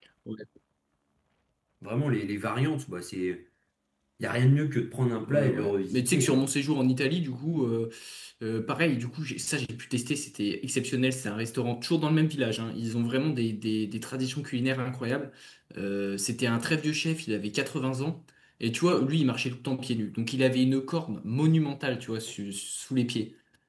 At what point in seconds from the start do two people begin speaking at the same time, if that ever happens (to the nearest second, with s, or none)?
5 s